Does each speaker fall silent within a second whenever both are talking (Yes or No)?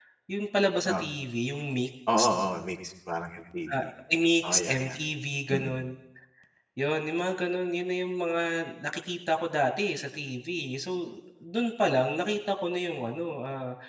Yes